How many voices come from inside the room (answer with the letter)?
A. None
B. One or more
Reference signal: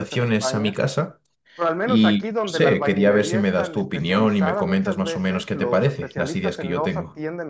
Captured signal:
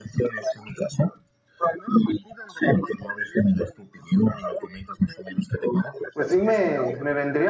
B